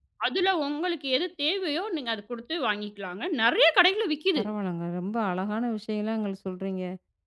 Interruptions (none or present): none